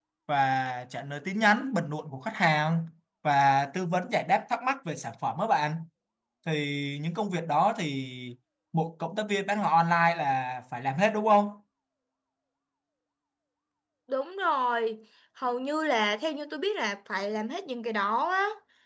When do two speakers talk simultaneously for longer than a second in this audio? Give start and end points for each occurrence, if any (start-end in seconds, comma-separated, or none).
none